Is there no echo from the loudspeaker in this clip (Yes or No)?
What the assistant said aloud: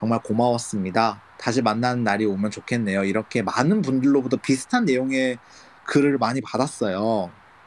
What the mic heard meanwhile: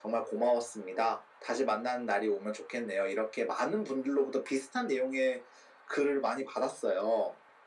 No